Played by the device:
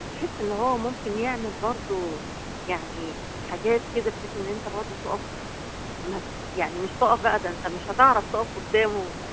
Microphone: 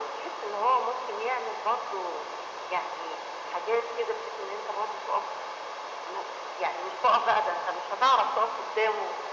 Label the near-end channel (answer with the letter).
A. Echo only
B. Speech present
A